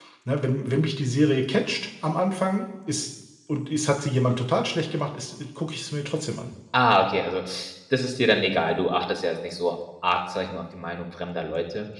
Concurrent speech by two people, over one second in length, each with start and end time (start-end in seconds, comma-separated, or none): none